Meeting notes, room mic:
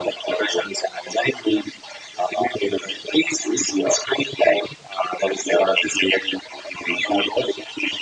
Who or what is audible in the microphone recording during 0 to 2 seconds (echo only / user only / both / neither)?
echo only